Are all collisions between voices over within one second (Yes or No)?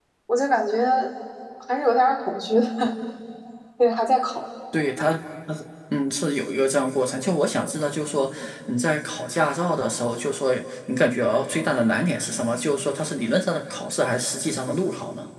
Yes